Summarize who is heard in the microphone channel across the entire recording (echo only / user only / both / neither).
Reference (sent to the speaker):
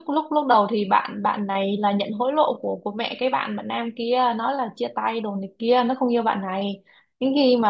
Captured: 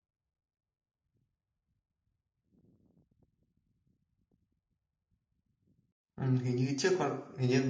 user only